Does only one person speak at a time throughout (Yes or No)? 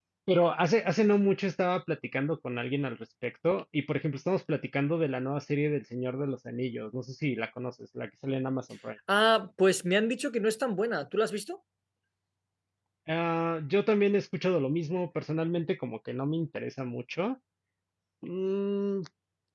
Yes